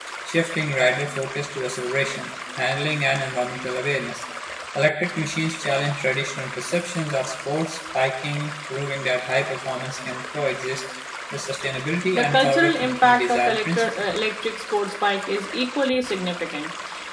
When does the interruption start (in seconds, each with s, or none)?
12.1 s